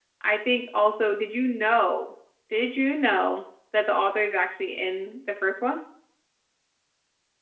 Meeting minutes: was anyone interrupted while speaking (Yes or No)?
No